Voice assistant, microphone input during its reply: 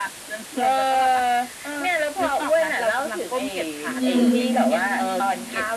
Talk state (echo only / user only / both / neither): both